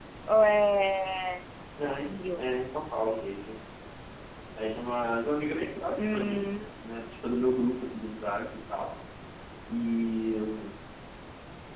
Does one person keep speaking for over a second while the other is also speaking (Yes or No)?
No